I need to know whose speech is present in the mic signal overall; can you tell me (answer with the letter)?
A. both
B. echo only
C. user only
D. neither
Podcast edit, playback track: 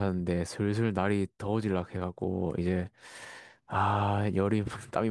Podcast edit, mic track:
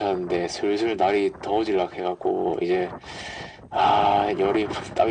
B